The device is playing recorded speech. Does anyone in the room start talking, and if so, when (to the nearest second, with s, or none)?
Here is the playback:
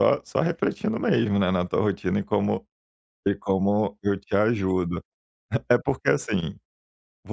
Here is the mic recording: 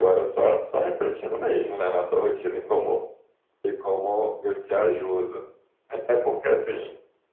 none